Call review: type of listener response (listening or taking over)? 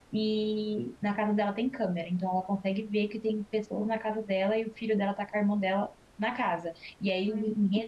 listening